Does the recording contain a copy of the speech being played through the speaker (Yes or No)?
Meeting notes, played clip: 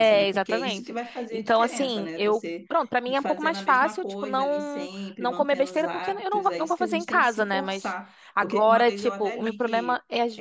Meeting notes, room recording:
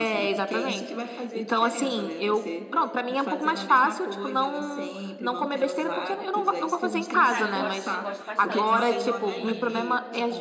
Yes